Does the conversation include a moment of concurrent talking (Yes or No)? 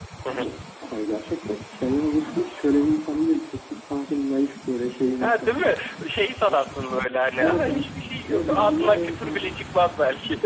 Yes